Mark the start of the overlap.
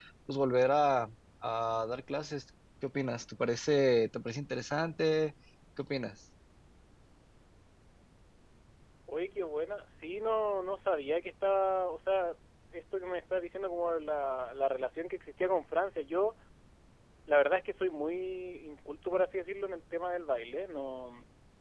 none

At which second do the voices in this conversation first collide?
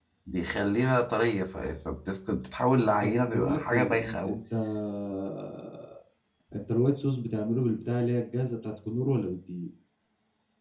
3.0 s

